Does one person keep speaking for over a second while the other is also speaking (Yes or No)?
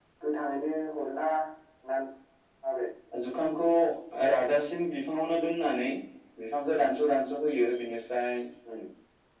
No